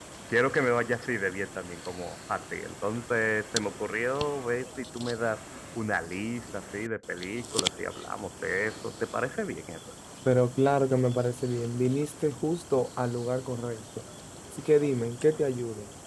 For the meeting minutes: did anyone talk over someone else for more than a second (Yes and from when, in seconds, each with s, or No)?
No